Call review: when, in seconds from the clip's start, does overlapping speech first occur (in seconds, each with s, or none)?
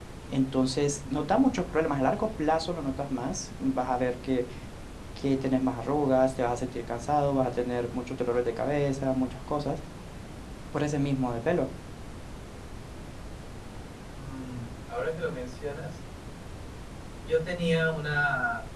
none